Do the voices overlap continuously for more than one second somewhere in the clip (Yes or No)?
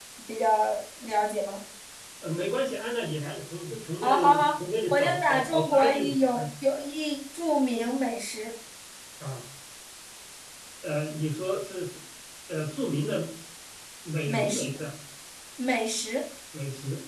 Yes